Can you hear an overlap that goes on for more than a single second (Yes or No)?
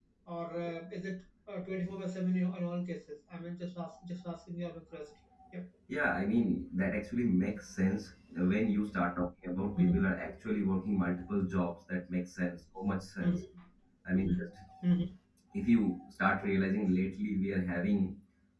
No